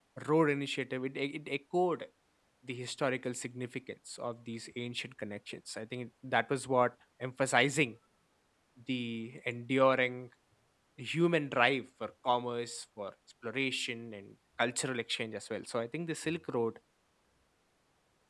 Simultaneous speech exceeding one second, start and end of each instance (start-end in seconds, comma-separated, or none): none